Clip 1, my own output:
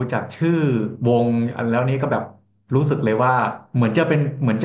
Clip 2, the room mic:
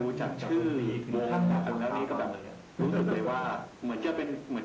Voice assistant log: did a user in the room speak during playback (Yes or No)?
Yes